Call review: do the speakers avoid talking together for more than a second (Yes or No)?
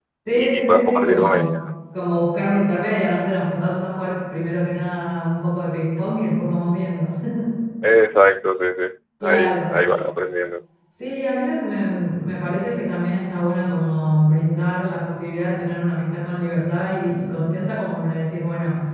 No